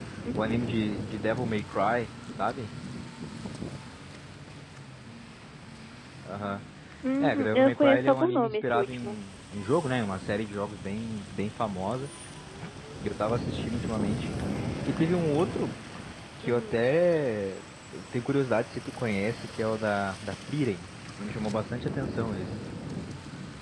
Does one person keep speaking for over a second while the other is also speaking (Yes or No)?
Yes